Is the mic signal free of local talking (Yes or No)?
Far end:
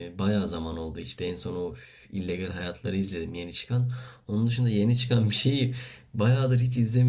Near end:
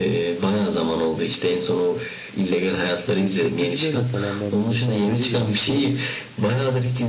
No